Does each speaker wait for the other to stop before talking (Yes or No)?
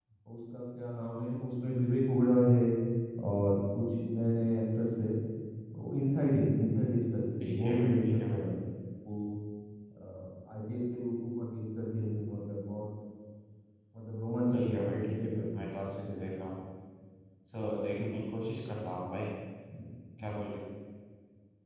No